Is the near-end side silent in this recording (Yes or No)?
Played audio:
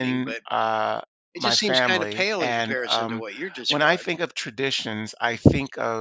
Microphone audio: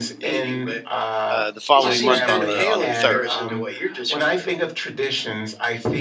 No